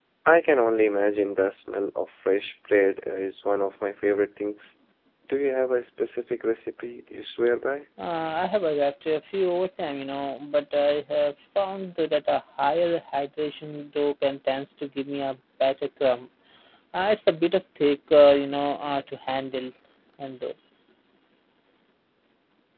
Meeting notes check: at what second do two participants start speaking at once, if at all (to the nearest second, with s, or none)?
none